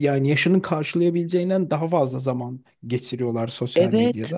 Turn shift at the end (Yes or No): Yes